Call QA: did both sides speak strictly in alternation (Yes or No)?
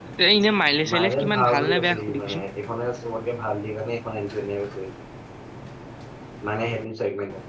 No